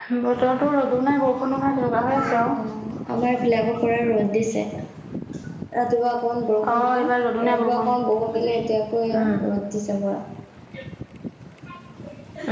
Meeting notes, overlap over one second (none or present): none